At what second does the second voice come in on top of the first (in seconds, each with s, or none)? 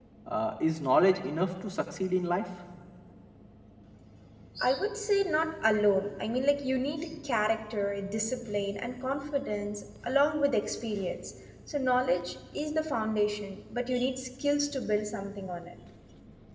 none